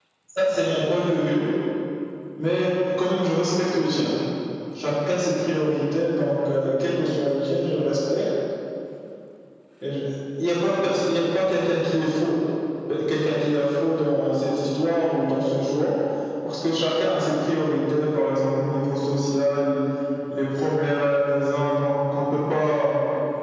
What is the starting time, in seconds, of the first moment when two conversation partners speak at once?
none

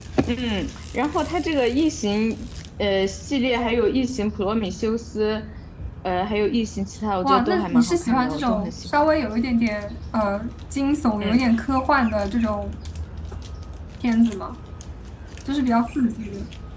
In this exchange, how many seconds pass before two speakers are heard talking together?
7 s

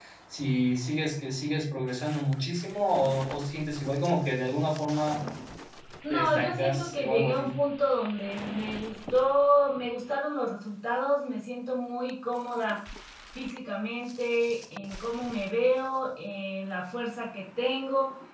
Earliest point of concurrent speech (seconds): 6 s

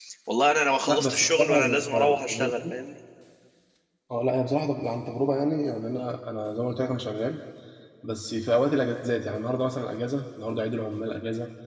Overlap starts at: 1 s

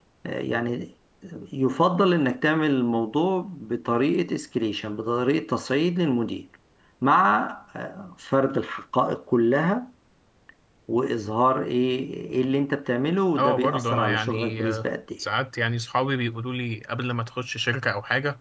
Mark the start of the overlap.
13 s

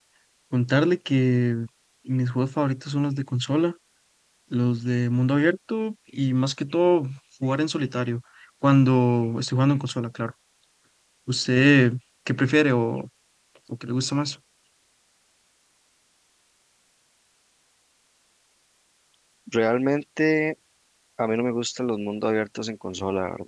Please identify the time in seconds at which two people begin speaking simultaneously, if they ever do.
none

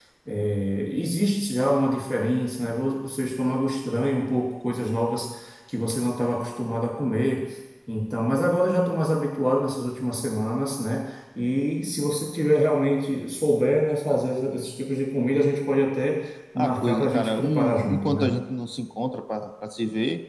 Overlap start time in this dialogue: 17 s

